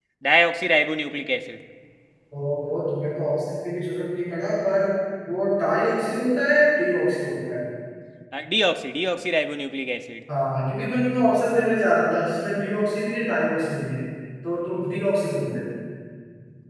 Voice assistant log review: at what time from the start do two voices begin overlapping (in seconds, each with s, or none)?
none